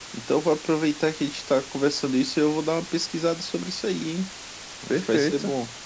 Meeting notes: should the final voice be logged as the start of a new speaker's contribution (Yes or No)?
Yes